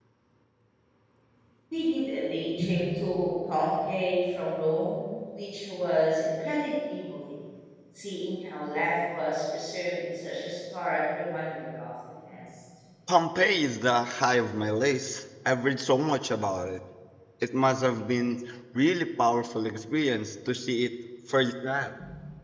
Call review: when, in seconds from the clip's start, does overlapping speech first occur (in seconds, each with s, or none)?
none